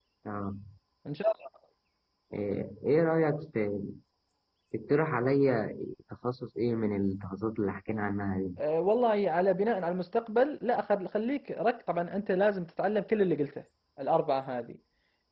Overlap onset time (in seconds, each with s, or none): none